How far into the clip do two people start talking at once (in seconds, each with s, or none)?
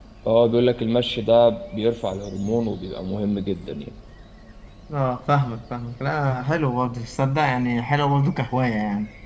none